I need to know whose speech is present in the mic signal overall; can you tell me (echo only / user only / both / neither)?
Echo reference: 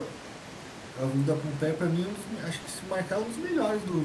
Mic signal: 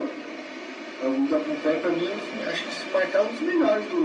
echo only